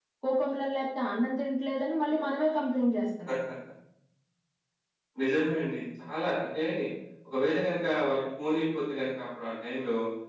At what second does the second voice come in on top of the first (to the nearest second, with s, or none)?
none